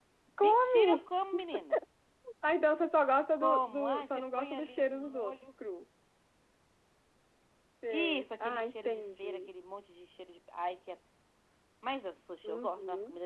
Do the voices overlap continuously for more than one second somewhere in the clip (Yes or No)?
Yes